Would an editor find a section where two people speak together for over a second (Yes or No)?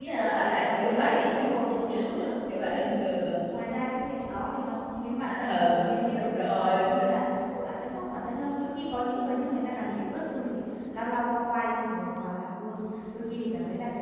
Yes